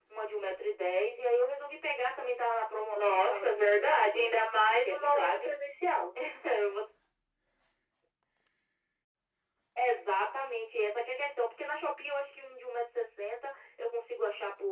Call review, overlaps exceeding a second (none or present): present